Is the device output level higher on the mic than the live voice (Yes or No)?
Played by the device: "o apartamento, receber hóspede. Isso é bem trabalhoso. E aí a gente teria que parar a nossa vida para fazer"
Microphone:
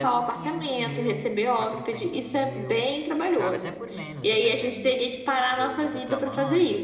Yes